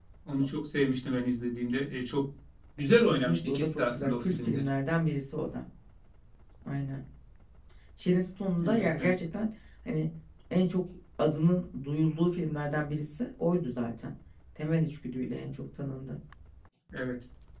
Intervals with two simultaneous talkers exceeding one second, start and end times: 3.1-4.6

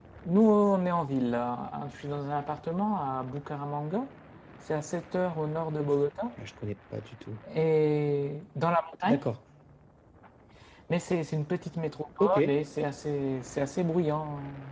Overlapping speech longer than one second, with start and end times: none

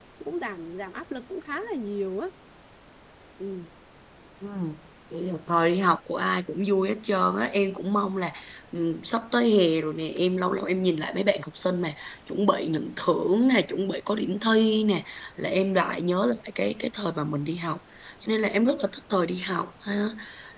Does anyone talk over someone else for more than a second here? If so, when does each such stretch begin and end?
none

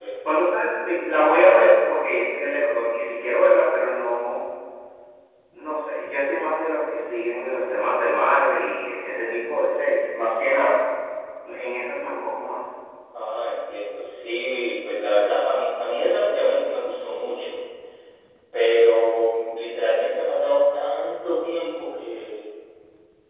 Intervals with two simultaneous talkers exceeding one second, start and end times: none

